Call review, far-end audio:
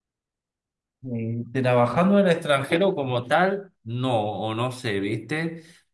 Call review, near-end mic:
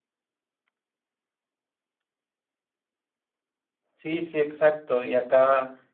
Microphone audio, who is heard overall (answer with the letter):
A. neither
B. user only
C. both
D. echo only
B